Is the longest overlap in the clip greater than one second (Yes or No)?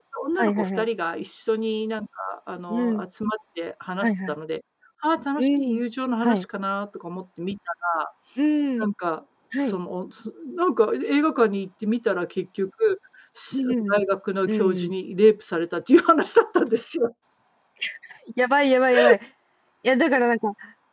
No